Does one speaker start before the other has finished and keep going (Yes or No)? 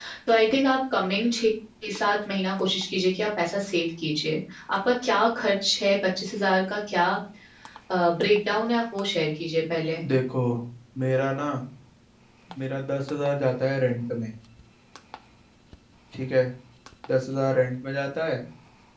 No